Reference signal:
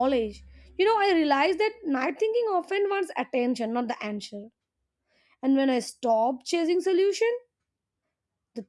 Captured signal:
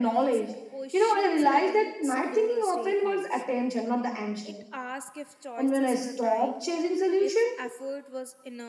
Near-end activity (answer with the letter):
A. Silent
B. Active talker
B